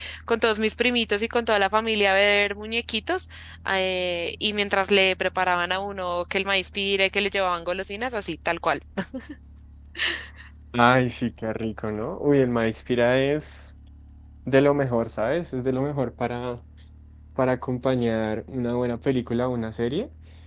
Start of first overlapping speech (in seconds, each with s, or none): none